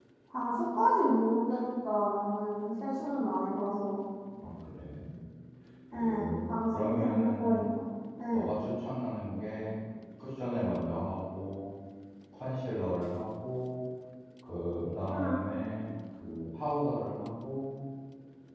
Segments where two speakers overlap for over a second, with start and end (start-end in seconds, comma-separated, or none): 5.9-7.6